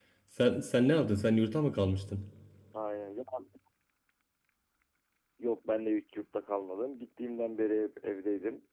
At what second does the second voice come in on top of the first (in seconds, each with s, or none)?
none